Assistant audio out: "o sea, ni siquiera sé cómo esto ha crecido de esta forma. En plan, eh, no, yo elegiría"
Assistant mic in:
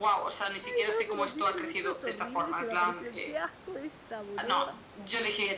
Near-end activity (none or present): present